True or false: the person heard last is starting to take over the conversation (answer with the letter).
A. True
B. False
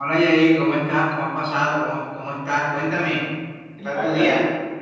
A